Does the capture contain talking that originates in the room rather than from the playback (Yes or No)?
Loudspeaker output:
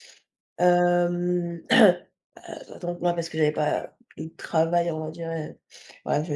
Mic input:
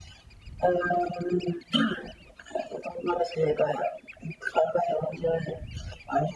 No